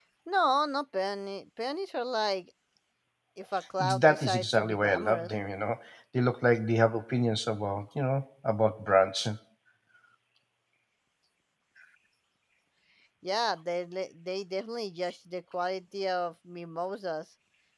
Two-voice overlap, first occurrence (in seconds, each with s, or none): 3.8 s